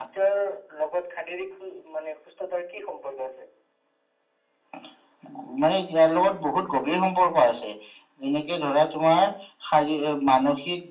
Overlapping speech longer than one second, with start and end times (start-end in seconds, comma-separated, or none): none